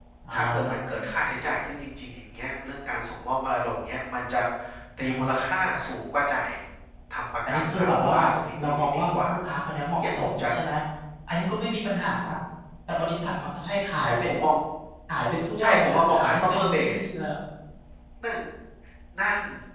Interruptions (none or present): present